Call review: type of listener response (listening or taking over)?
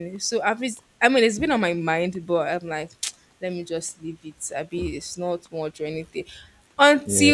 listening